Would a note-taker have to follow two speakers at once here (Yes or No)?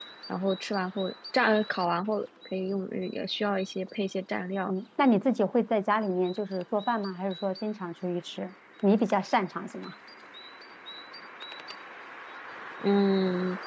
No